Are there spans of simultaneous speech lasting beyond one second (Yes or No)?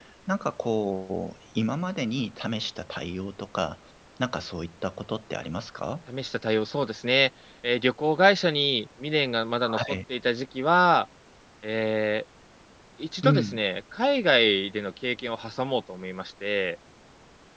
No